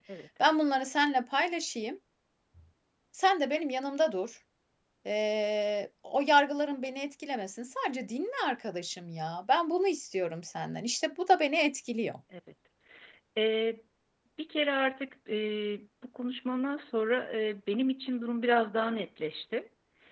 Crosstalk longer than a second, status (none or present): none